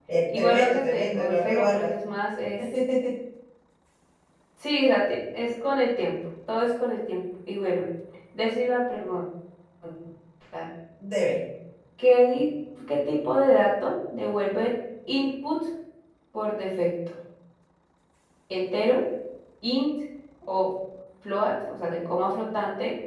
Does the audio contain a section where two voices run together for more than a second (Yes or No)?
Yes